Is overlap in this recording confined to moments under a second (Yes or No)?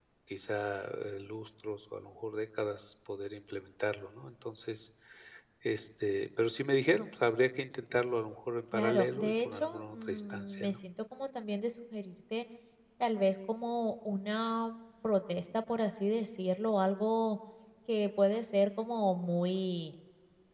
No